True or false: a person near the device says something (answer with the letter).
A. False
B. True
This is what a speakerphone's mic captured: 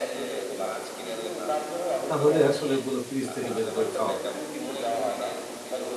B